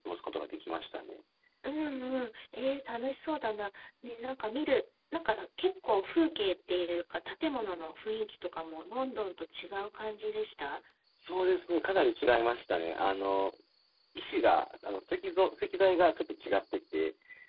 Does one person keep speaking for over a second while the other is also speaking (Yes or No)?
No